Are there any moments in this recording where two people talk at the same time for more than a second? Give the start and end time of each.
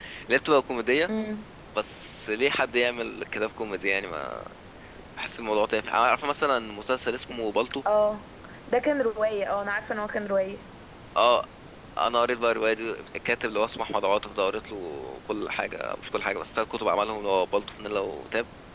none

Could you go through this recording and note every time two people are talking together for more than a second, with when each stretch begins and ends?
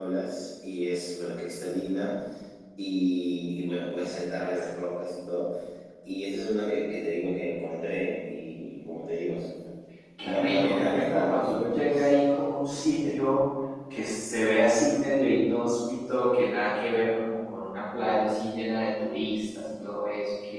10.2-12.1

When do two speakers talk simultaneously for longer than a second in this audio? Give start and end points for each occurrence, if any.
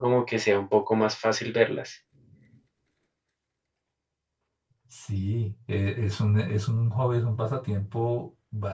none

